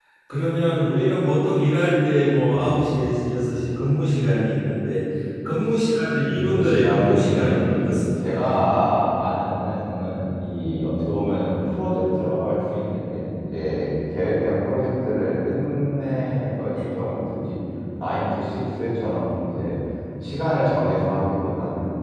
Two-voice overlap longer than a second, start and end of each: 6.3-7.7

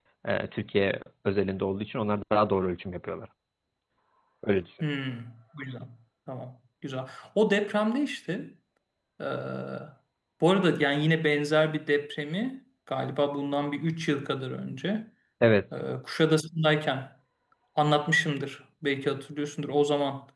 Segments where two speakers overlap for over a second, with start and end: none

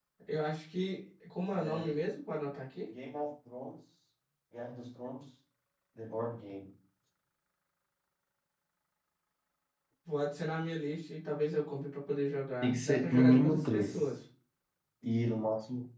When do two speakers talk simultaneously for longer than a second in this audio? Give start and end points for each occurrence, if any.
12.6-14.0

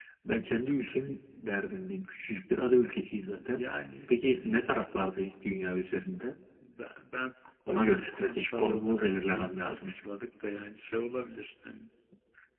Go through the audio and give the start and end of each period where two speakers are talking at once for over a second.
7.7-9.9

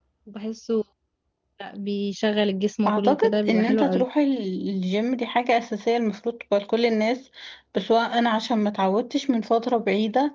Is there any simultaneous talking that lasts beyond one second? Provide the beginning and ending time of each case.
2.9-4.0

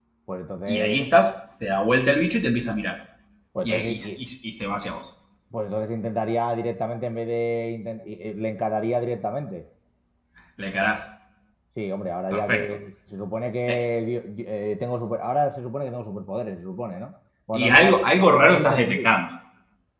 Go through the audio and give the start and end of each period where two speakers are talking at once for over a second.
17.5-19.1

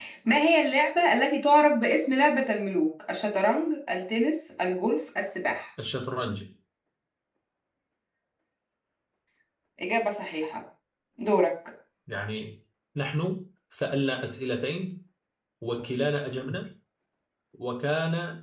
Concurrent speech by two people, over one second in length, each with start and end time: none

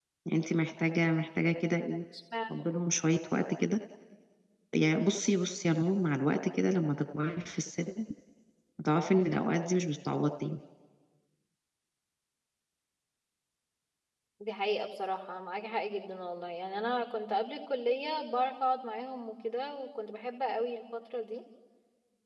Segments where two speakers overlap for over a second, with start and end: none

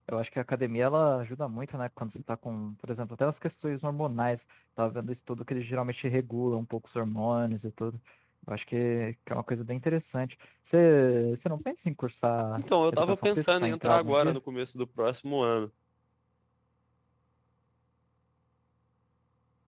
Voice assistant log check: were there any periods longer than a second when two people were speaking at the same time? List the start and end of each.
12.6-14.4

